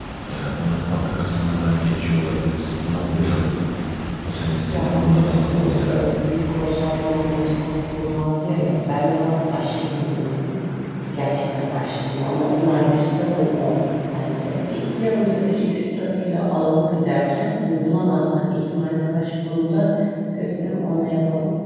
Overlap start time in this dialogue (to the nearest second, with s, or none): 5 s